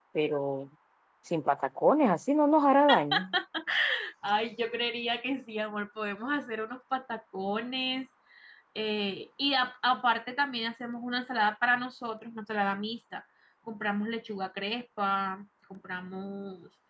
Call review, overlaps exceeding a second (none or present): none